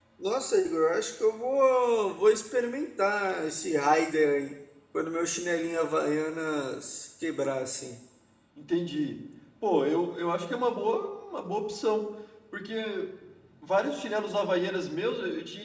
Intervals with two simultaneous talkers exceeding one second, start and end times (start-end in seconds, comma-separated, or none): none